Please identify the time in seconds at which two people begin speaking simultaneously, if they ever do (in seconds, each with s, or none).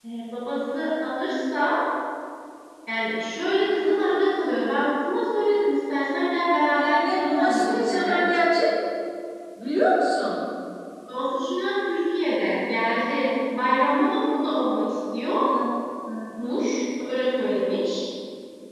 6.7 s